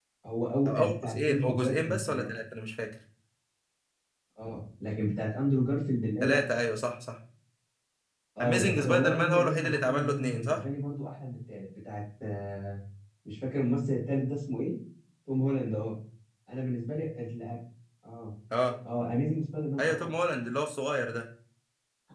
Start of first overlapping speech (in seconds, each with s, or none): 0.7 s